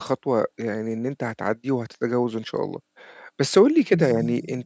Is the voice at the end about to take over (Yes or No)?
No